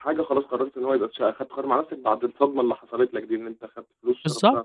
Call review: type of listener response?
taking over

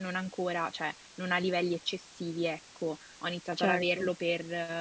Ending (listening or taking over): listening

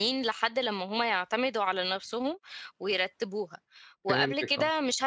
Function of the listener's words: listening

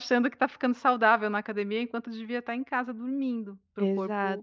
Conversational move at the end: taking over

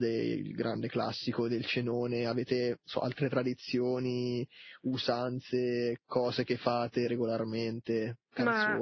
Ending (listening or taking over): taking over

